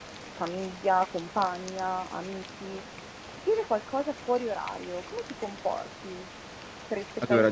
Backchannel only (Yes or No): Yes